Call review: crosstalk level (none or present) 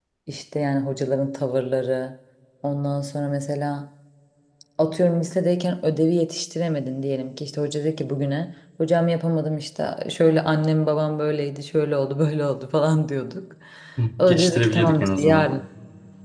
present